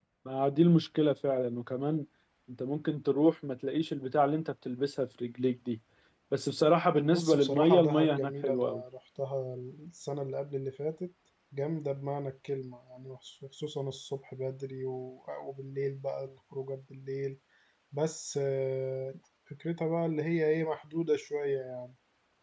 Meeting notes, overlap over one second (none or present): present